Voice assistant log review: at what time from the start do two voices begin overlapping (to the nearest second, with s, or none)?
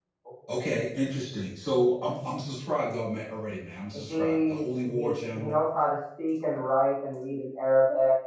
4 s